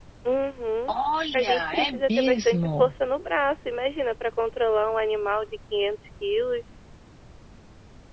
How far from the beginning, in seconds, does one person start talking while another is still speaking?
1.3 s

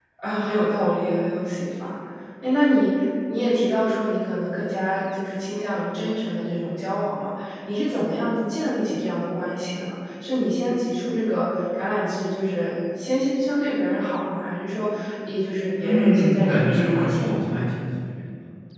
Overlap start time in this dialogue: 15.8 s

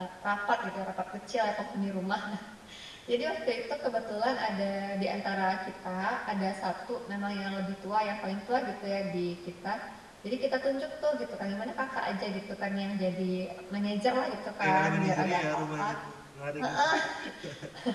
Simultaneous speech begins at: 14.6 s

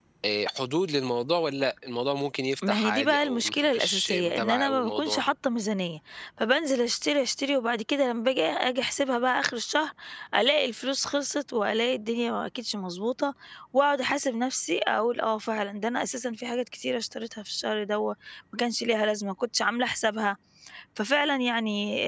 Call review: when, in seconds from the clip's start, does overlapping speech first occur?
2.6 s

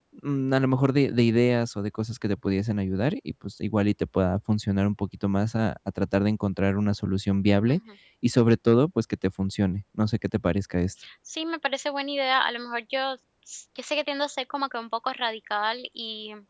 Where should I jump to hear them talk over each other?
none

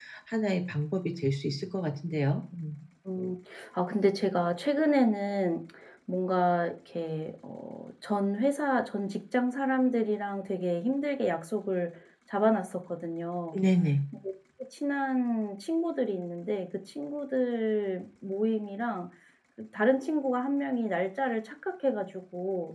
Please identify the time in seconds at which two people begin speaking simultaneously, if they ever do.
none

